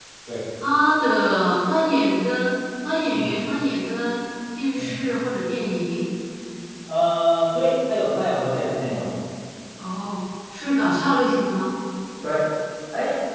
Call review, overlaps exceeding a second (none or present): none